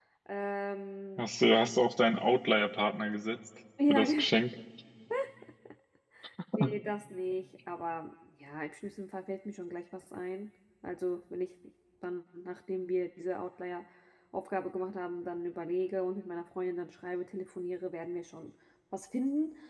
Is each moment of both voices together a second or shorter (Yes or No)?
Yes